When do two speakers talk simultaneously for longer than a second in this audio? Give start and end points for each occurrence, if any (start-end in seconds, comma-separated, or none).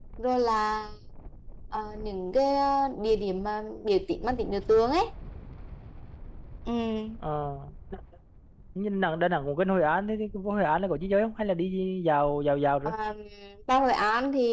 none